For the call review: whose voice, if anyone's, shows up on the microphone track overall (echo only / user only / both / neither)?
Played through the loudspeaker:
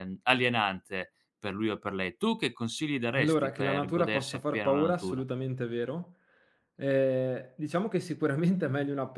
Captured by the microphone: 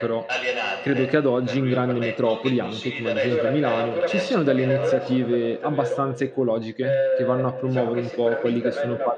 both